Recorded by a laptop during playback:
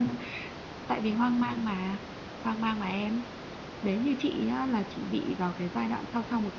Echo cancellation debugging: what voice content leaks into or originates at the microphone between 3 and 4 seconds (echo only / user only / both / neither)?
user only